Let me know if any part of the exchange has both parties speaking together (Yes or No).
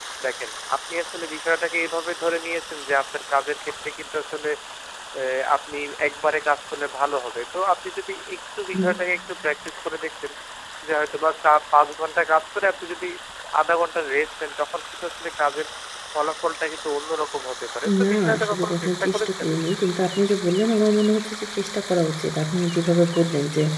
Yes